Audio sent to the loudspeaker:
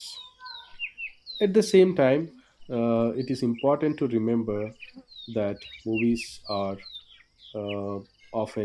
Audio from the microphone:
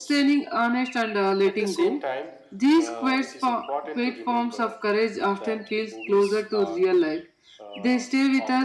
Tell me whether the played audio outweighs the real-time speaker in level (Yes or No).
No